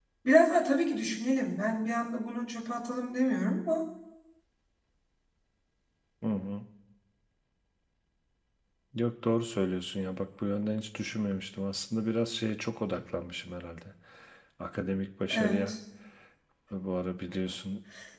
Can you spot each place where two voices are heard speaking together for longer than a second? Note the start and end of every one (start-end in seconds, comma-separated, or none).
none